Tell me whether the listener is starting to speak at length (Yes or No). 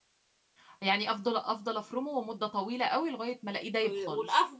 Yes